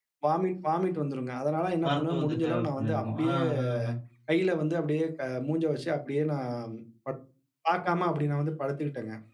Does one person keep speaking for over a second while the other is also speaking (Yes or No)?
Yes